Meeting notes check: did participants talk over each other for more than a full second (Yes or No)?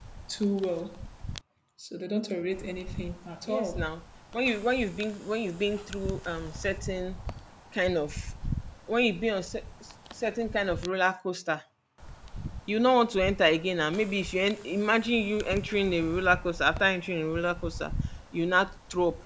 No